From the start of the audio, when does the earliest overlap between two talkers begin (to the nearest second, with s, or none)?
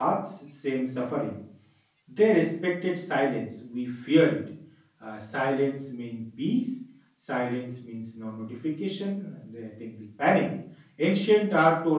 none